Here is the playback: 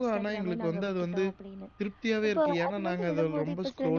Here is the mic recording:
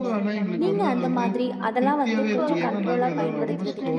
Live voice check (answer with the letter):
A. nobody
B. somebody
B